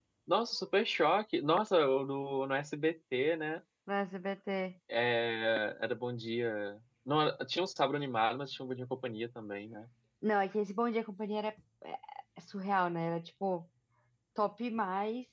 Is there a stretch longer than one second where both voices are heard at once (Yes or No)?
No